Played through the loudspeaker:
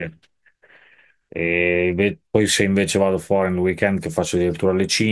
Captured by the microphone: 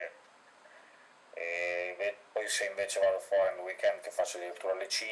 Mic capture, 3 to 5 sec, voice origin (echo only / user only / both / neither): echo only